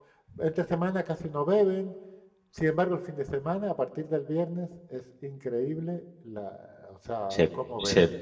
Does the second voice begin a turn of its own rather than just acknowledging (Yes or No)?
Yes